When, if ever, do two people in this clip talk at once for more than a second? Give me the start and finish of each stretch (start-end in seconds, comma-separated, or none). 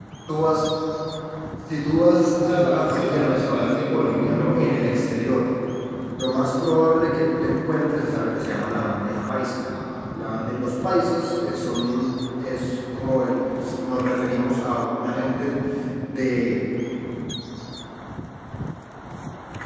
2.4-4.9